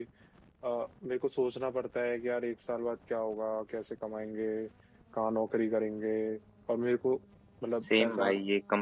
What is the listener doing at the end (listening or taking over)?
taking over